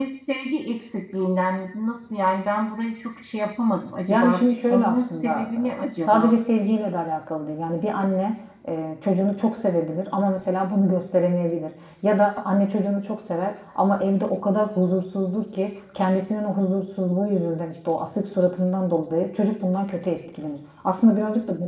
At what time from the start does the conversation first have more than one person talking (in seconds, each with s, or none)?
4.1 s